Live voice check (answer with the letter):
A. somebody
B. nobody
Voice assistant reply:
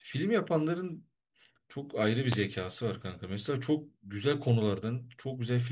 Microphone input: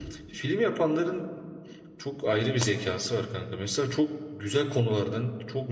B